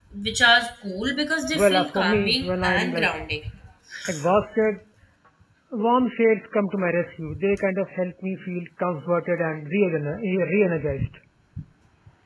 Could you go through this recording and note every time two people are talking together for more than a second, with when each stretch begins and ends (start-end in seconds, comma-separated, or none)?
1.5-3.1